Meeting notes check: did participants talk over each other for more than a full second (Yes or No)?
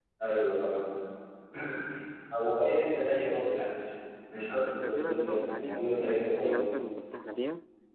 Yes